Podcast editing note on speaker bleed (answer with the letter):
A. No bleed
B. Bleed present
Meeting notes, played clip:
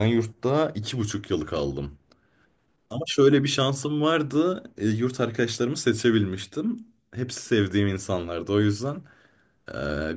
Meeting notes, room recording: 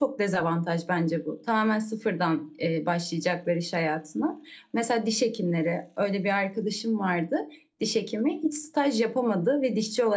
A